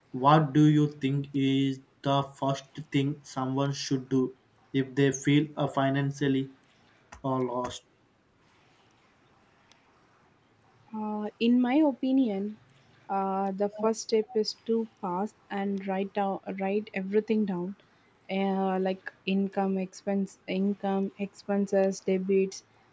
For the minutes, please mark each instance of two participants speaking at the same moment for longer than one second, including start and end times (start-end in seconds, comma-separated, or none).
none